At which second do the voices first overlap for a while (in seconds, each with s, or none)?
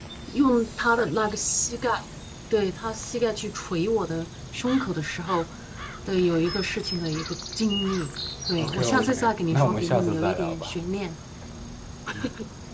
8.6 s